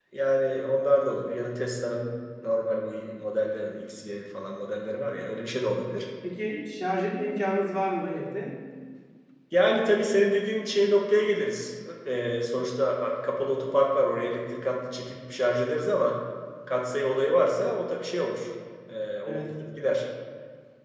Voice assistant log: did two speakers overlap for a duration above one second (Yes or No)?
No